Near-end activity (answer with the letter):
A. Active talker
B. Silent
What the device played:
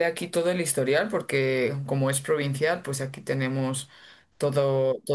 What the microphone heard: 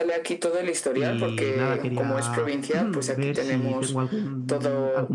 A